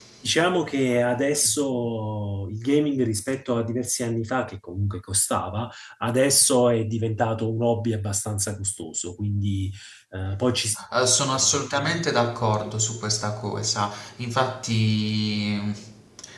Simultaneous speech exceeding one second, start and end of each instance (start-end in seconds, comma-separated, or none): none